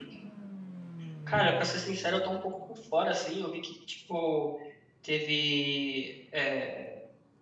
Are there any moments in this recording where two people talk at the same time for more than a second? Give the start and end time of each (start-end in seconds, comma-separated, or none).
none